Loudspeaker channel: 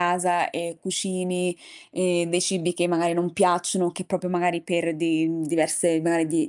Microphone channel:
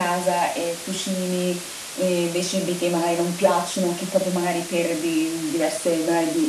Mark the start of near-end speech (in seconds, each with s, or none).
none